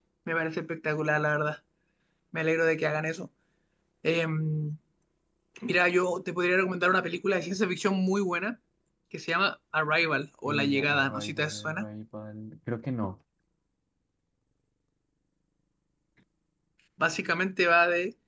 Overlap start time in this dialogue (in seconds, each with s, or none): 10.5 s